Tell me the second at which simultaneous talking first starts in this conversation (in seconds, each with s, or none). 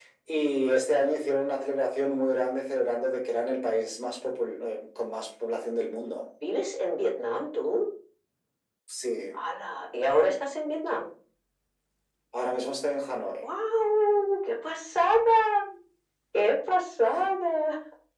none